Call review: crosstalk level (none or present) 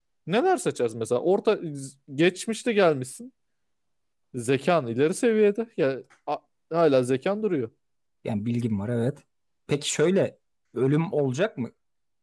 none